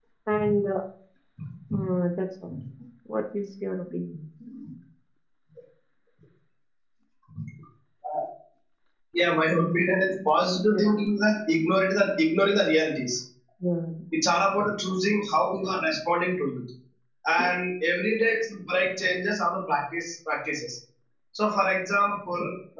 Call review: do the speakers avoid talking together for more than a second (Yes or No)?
Yes